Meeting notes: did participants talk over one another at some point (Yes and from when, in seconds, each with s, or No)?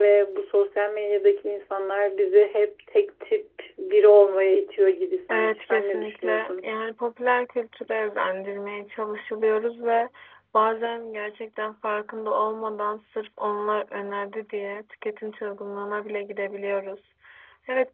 Yes, from 5.3 s